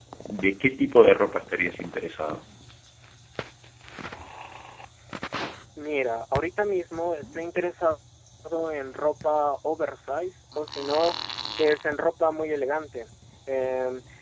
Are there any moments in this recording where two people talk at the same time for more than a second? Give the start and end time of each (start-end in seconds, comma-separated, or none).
none